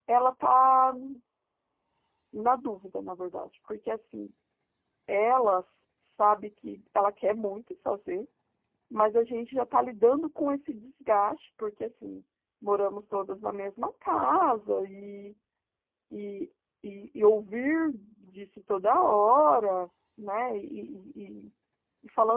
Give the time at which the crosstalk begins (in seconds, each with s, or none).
none